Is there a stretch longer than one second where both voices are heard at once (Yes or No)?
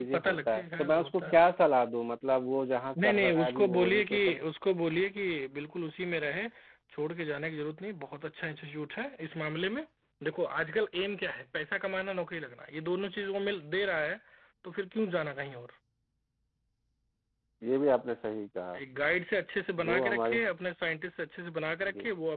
Yes